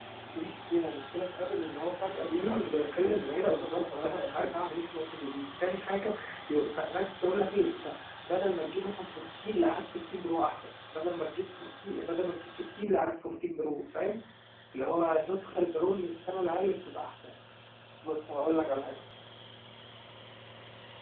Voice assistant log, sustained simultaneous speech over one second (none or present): present